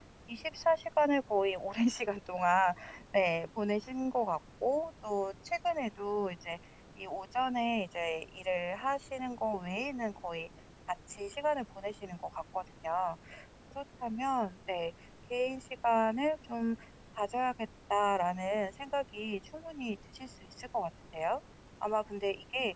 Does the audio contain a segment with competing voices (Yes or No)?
No